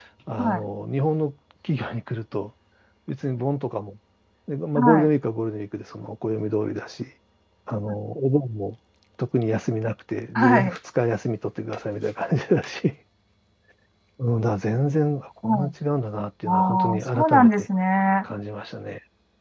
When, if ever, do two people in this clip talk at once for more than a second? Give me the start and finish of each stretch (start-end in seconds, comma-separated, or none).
16.4-17.7